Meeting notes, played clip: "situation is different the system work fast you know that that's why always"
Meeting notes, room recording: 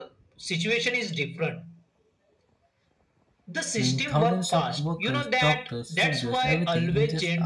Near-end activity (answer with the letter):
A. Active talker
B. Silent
A